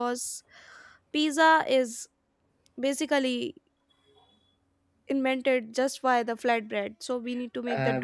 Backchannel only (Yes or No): No